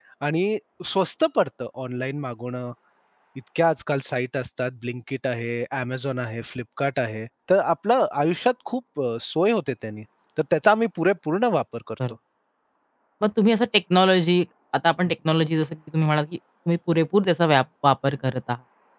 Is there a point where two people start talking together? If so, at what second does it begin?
none

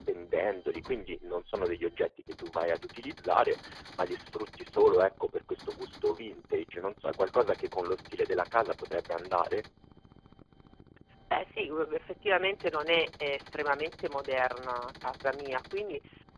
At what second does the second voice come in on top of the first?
none

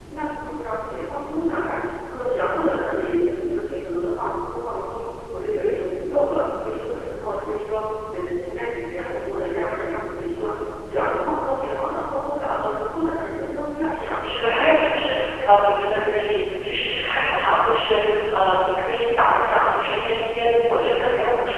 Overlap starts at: 13.9 s

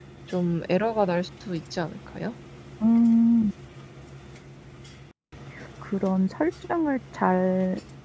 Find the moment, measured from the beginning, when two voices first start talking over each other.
none

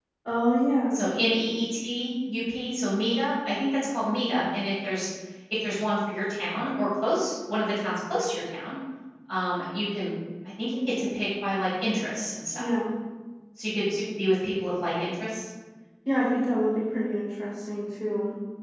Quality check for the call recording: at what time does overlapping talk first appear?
none

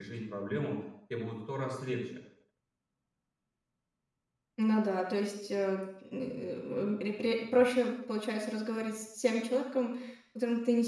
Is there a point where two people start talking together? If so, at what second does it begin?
none

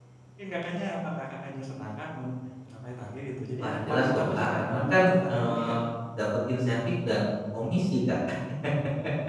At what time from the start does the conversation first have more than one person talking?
3.6 s

